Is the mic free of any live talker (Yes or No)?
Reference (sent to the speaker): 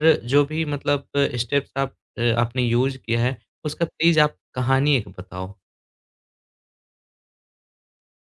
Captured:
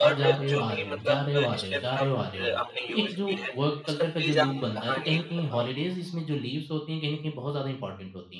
No